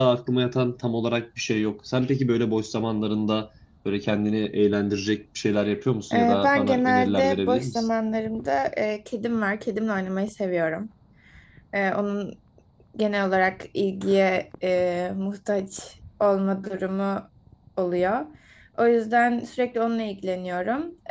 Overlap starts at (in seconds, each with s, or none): 6.1 s